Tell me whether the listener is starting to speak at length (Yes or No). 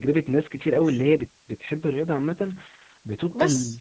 No